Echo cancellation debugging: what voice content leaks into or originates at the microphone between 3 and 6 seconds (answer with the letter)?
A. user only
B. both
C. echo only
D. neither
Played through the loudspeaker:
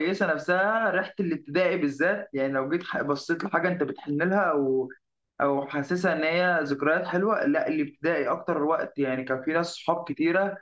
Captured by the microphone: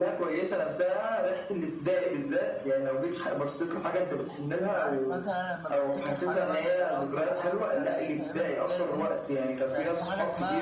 B